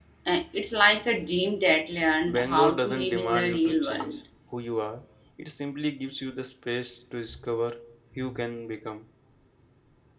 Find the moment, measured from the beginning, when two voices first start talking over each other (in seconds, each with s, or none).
2.3 s